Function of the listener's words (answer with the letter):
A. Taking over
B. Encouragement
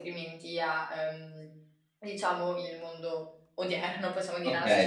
A